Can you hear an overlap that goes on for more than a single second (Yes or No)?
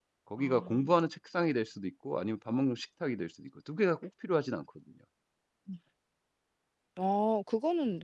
No